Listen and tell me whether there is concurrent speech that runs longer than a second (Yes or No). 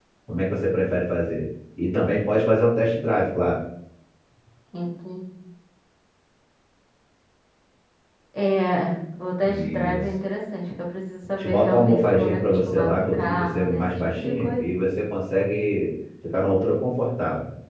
Yes